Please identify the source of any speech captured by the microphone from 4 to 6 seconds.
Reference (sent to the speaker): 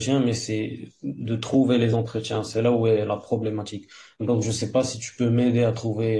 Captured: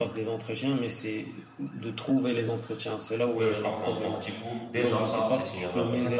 both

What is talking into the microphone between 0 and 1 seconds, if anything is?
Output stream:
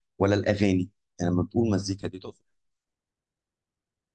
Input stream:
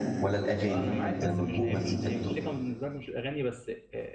both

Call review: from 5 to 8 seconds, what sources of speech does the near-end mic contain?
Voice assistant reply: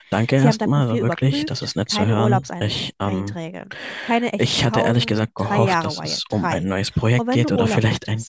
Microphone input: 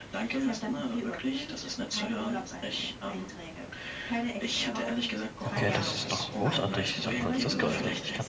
both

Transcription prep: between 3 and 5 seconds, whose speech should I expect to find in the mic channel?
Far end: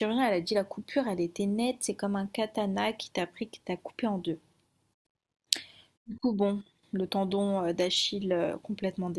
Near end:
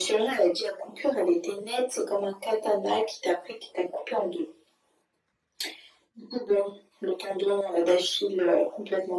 echo only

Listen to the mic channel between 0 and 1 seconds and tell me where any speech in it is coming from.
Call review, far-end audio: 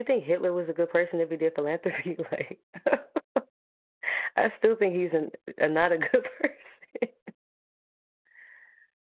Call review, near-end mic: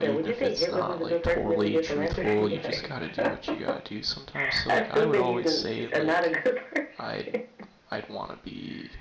both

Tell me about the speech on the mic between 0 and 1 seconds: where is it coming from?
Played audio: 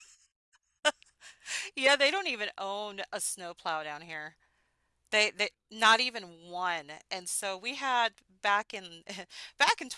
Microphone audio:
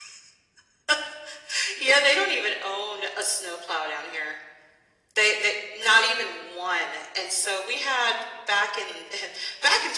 neither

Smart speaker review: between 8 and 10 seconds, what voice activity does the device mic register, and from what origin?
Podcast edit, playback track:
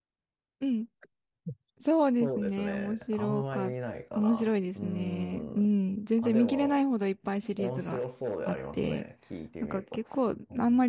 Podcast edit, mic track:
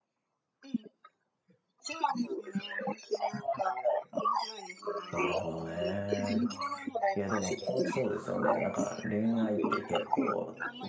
both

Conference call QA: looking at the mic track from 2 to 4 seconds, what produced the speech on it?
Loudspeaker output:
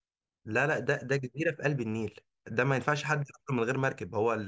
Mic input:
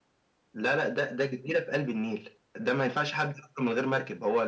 echo only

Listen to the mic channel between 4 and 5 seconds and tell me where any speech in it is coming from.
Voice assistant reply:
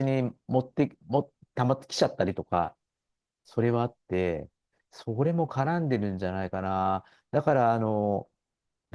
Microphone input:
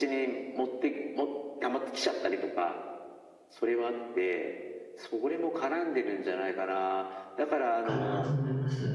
echo only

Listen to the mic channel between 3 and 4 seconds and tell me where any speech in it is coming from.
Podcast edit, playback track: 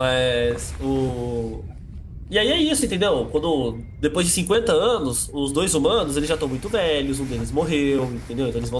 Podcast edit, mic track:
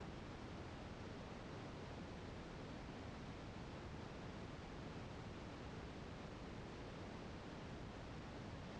neither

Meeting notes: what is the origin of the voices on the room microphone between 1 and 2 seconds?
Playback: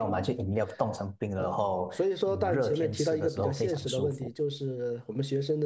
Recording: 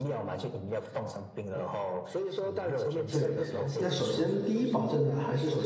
echo only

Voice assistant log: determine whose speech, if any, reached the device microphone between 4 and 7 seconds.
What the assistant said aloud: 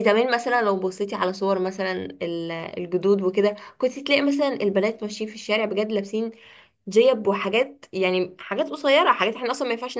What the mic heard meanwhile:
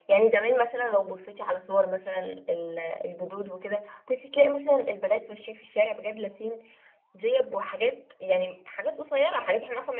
echo only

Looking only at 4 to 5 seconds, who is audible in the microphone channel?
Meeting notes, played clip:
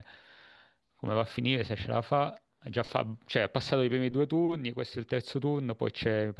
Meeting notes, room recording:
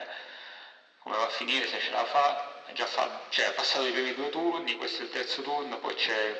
echo only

